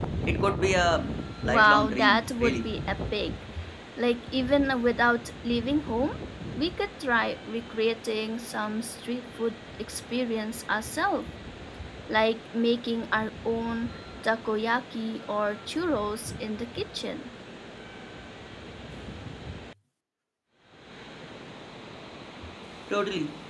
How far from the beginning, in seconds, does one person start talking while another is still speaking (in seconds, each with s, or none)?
1.4 s